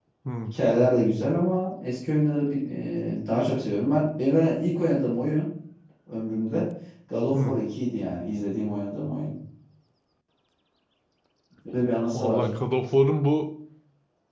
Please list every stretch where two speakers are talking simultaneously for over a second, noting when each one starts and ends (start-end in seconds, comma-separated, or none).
none